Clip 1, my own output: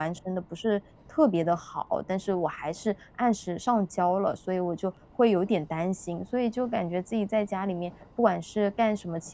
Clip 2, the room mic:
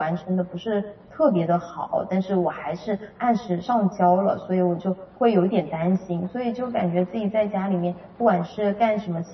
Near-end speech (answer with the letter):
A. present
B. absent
B